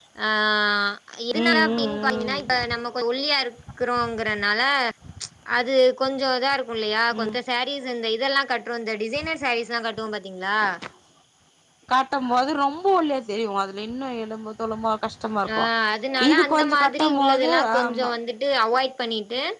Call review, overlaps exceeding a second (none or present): present